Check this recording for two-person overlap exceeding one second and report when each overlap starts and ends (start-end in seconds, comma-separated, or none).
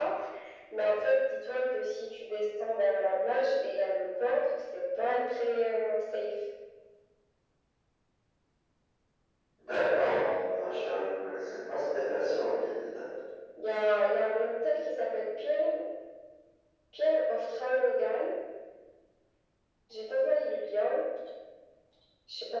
none